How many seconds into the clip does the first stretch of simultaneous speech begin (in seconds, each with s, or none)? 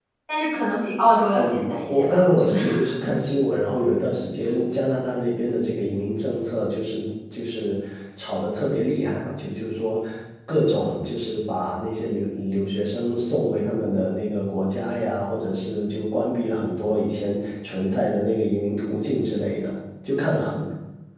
1.4 s